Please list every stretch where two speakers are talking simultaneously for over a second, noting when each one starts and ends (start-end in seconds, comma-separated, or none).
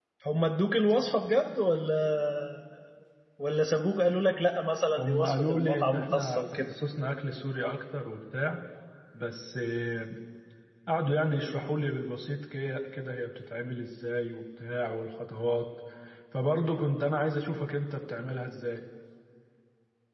5.0-6.7